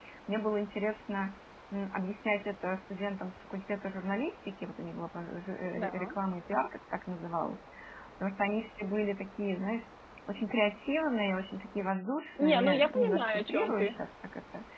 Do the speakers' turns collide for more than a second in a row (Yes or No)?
Yes